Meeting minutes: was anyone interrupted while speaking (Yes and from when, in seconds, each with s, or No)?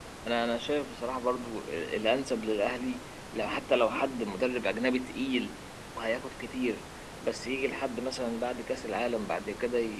No